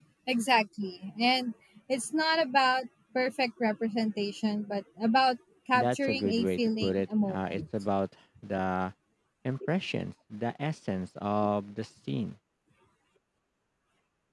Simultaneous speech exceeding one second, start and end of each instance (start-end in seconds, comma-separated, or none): 5.7-7.6